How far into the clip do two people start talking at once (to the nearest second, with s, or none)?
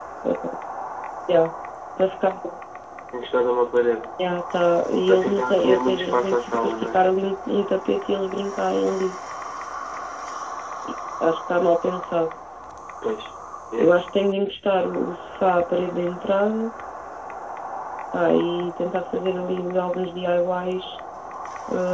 5 s